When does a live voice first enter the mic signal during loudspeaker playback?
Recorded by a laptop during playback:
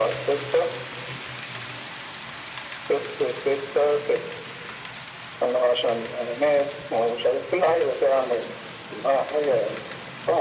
none

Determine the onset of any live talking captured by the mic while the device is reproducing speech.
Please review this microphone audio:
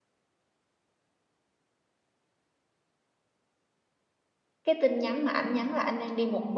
4.6 s

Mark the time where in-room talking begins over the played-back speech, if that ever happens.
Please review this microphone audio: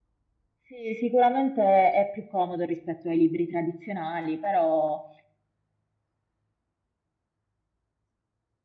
0.7 s

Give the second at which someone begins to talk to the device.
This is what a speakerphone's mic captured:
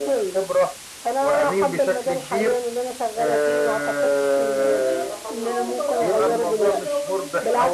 4.6 s

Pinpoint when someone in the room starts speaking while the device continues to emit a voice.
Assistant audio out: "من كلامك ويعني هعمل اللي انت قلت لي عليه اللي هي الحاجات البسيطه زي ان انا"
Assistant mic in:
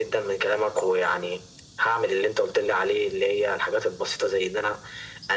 none

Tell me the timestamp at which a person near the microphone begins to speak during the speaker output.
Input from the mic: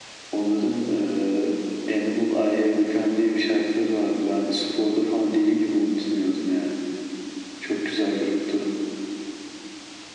none

